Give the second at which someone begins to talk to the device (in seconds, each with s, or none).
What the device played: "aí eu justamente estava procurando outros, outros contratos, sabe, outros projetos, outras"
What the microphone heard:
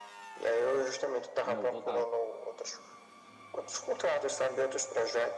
1.4 s